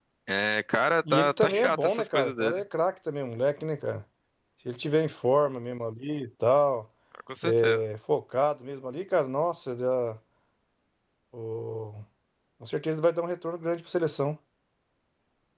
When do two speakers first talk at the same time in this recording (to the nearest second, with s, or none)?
1 s